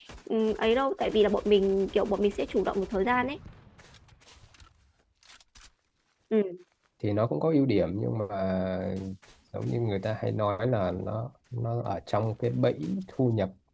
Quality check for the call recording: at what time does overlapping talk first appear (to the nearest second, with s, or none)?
none